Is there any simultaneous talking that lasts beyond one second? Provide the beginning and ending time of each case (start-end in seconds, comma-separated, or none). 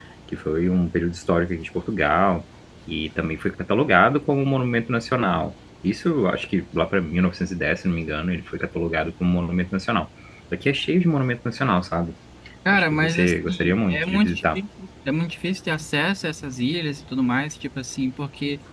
12.7-14.6